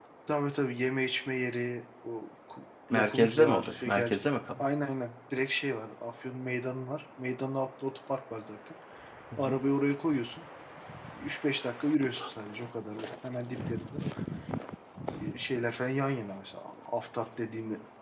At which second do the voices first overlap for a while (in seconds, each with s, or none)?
2.9 s